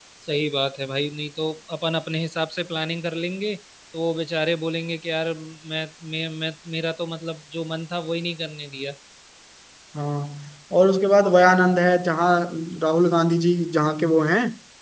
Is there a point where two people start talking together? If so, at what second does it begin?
none

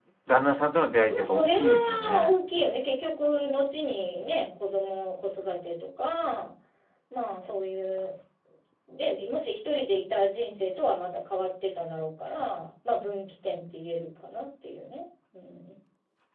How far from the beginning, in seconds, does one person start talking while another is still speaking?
1.0 s

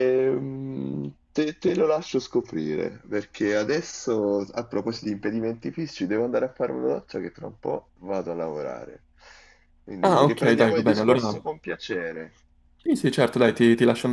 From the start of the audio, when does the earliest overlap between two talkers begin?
10.0 s

